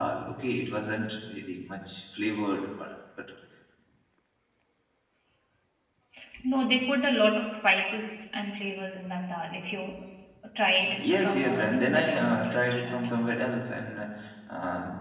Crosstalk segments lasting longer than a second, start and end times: 10.8-13.2

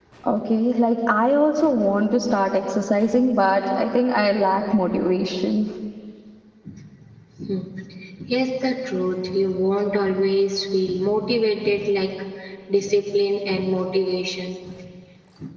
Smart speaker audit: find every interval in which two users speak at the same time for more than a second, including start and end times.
none

